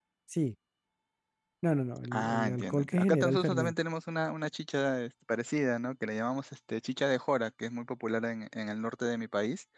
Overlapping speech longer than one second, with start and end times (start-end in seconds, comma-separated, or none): 2.1-3.7